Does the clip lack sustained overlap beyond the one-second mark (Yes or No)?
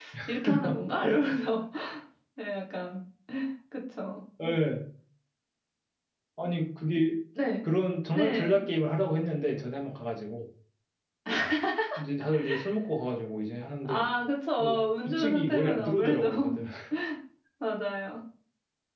No